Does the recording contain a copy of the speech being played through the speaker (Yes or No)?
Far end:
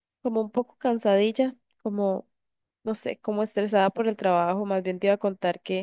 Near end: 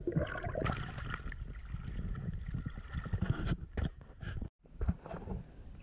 No